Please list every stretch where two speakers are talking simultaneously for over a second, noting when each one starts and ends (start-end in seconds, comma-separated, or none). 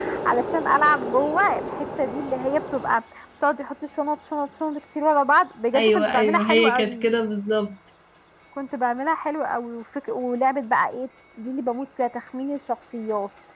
5.8-7.0